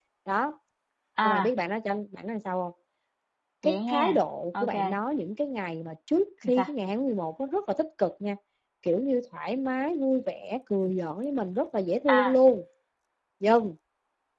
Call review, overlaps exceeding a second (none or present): none